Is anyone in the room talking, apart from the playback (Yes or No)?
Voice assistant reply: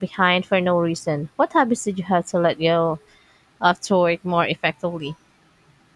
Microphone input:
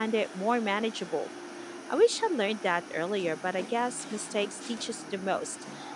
Yes